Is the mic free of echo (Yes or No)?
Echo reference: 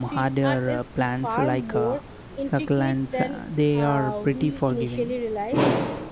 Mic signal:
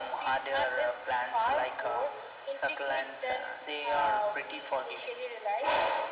No